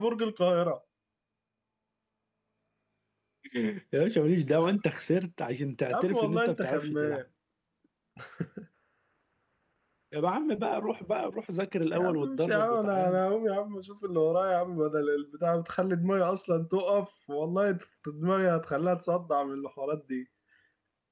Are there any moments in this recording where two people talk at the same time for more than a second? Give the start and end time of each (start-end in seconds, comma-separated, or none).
5.9-7.2, 11.9-13.2